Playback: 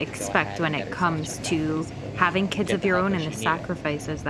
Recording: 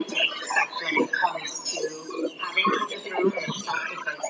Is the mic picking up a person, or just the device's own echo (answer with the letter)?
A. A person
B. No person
B